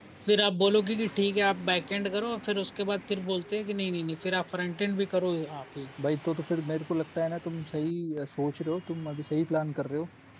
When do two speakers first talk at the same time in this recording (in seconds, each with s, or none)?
none